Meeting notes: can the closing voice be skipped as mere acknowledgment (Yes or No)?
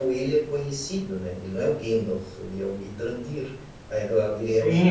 No